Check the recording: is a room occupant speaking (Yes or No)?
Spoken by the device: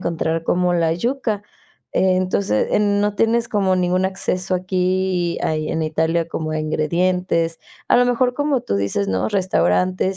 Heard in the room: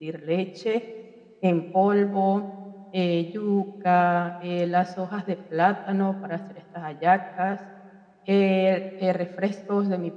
Yes